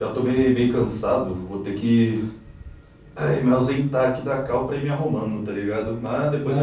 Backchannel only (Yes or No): No